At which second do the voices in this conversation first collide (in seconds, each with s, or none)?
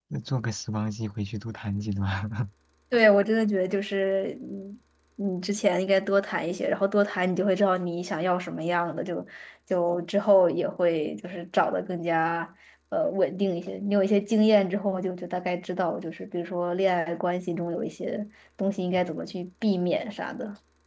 none